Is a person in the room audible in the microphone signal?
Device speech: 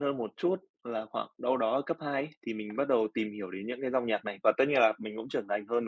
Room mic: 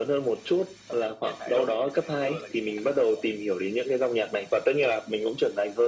Yes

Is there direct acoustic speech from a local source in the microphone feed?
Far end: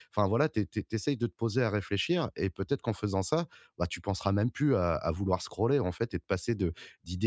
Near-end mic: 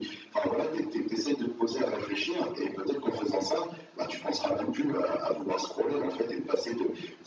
No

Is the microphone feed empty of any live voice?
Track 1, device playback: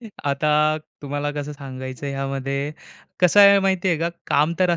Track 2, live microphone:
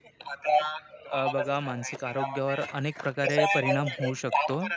No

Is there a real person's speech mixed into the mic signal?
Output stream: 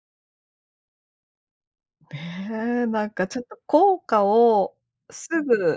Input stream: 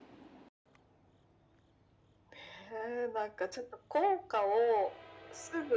No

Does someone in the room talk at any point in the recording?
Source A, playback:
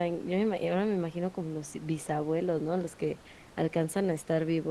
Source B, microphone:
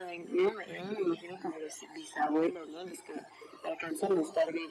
No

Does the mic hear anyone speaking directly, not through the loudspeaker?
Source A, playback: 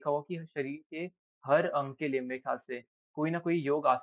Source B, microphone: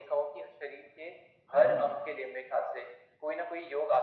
Yes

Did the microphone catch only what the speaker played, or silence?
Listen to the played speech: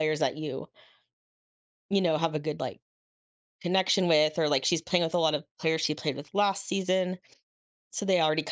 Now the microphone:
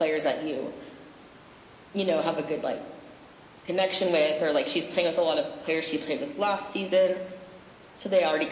Yes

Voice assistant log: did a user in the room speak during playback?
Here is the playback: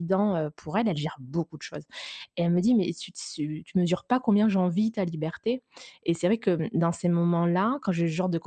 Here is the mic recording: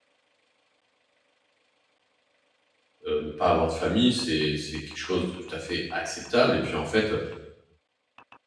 Yes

